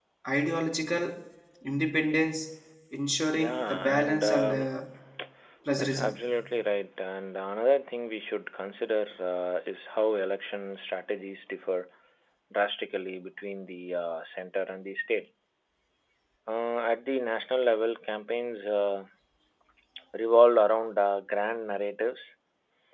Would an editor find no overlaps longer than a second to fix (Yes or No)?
No